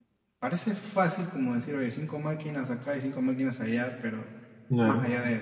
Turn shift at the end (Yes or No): No